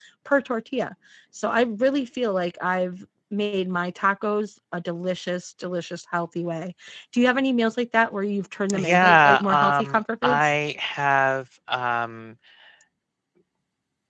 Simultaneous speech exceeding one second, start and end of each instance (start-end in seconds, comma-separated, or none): 8.7-10.6